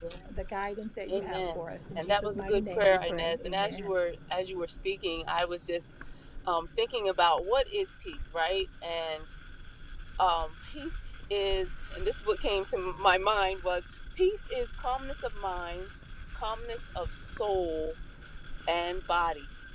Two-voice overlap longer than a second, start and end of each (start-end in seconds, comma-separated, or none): 1.1-3.9